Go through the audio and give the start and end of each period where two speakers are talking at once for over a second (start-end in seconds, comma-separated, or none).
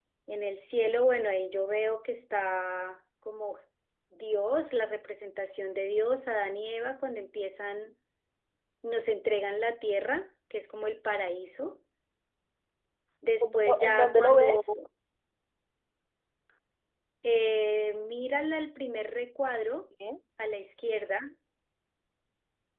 13.4-14.6